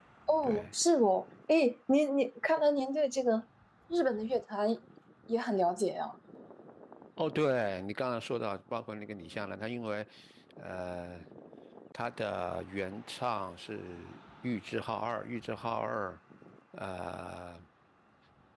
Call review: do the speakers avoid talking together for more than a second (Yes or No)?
Yes